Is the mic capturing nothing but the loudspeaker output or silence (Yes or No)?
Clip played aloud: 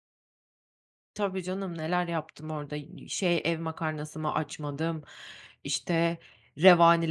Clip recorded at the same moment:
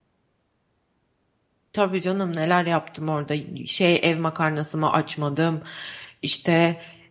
Yes